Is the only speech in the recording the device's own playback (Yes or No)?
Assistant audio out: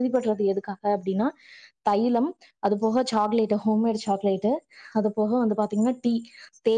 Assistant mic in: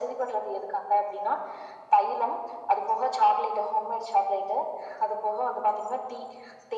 Yes